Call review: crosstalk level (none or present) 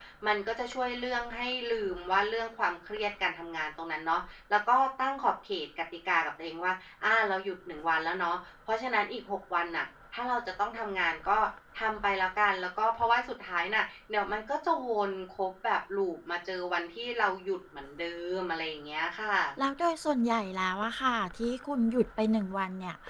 none